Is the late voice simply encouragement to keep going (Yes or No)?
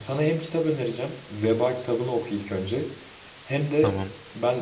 Yes